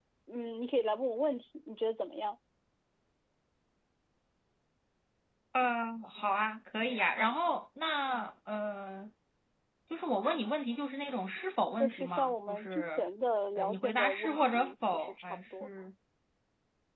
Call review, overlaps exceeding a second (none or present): present